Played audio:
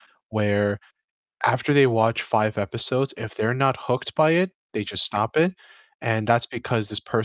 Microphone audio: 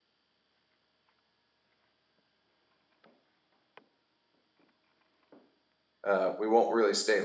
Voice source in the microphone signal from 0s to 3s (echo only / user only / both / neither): neither